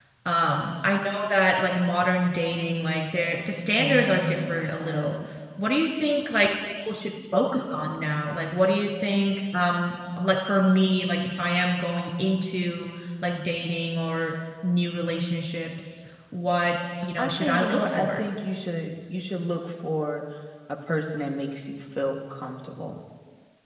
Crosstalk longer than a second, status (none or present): present